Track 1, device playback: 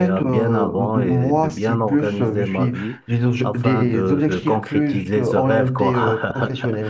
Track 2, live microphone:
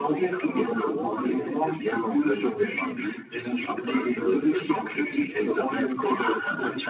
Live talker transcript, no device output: none

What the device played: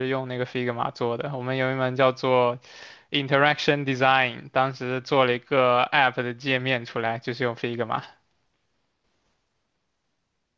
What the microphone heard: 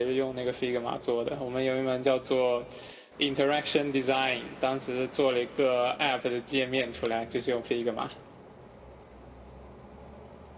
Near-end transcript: none

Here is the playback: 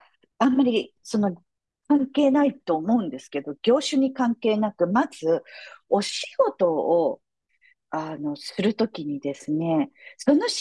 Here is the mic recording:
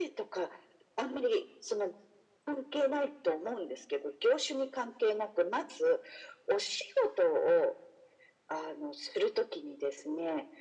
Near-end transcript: none

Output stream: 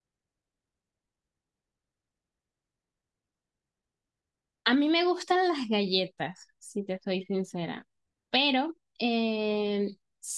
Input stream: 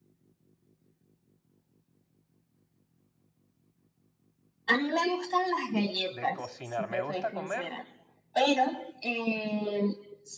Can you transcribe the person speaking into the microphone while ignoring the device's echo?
de cocinar. Me gusta comer,

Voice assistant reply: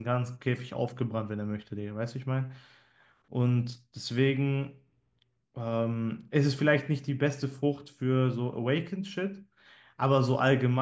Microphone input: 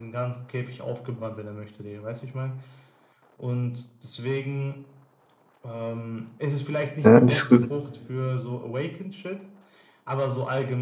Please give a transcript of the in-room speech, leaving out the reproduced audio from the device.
Ja, die ist gut.

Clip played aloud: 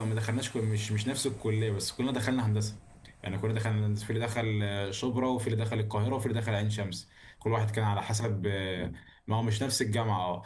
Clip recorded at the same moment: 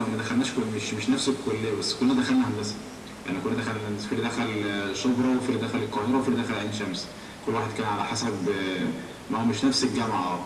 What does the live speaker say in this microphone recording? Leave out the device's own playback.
none

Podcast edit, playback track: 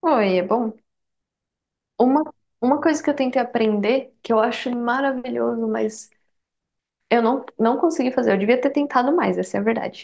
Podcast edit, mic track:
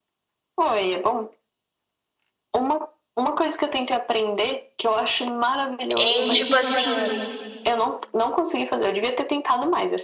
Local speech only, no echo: em tipo assim,

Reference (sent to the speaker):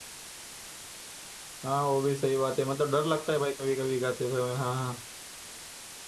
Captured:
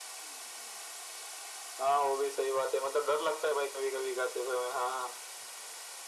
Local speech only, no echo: none

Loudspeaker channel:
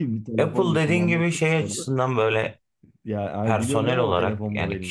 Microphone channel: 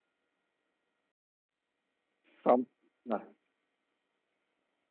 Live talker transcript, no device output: Samsung Ha,

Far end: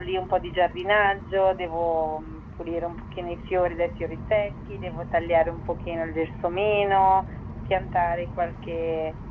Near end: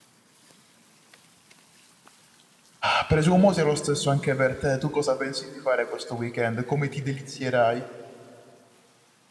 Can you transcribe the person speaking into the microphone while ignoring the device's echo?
Ah, Presumo sia lo stesso anche per te. Tu cosa pensi di fare questo weekend? Come ti delizierai?

